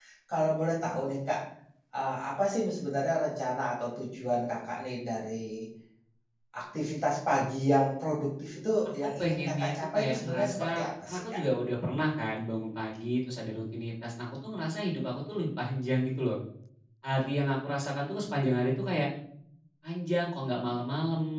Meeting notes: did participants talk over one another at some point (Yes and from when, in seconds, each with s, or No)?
Yes, from 8.8 s